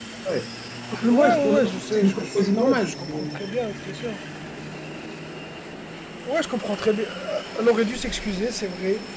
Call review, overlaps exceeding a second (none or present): present